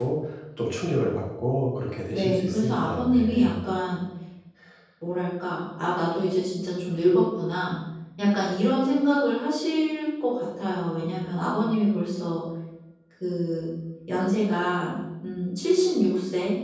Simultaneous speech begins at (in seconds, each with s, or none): 2.1 s